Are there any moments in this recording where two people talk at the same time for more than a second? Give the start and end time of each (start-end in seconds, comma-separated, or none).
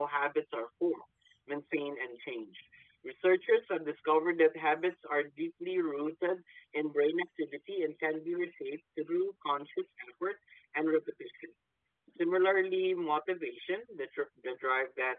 none